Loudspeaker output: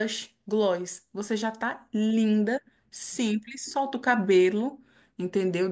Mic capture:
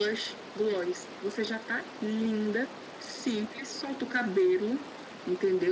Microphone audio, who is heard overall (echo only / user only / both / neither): echo only